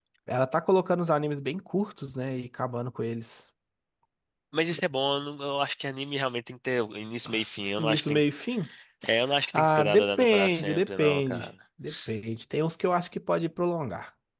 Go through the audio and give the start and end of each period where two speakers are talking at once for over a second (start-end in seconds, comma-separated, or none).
9.5-11.5